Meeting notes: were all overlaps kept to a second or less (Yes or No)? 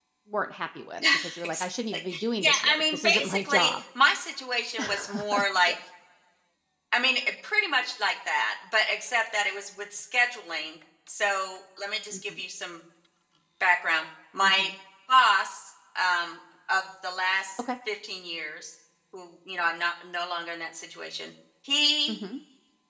No